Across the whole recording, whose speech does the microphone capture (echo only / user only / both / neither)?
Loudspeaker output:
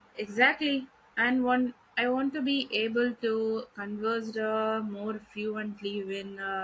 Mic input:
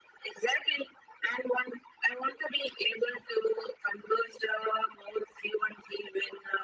echo only